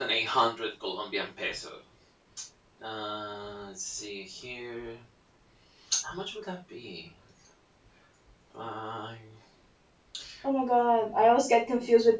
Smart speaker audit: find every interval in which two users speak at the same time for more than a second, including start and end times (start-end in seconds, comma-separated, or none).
none